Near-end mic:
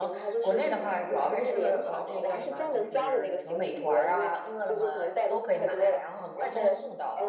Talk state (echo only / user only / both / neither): both